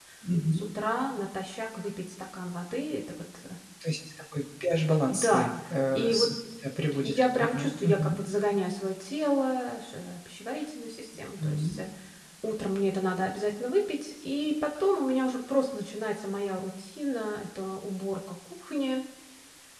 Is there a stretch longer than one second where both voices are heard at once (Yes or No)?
Yes